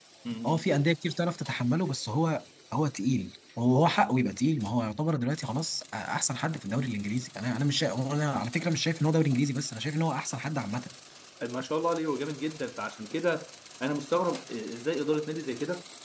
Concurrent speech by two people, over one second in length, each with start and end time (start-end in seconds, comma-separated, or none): none